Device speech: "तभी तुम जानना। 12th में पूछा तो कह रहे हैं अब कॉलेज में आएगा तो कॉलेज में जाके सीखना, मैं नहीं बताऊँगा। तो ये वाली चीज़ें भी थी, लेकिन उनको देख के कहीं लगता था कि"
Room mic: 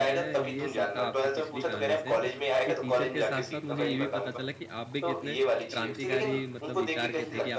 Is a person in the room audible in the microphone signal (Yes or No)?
Yes